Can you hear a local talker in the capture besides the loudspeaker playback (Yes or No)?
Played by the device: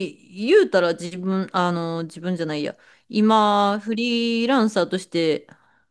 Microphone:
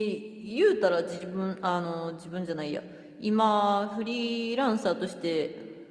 No